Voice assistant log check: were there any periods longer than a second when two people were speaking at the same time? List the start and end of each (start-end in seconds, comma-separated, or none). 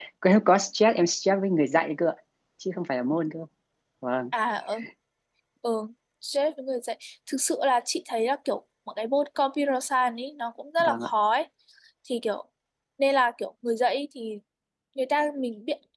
none